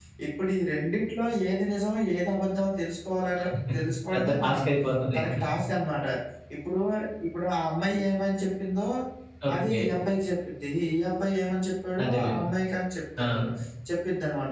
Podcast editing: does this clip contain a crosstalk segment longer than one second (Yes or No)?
No